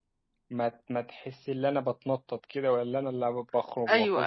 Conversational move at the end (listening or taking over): taking over